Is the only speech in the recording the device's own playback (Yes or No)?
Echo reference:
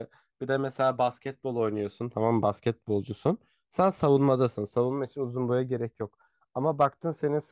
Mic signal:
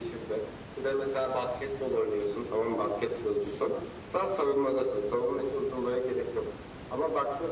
Yes